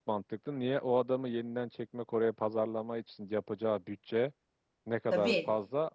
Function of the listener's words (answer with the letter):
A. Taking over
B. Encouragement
B